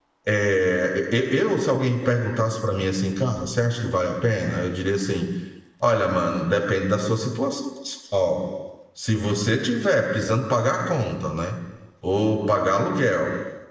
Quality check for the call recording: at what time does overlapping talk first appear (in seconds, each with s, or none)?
none